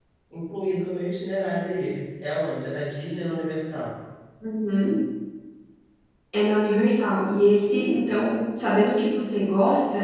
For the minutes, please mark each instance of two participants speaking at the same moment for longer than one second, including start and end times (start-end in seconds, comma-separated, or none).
none